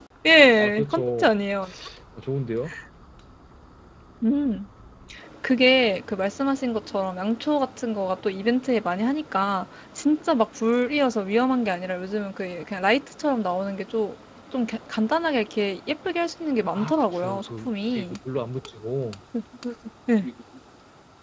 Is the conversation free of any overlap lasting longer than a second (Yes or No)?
No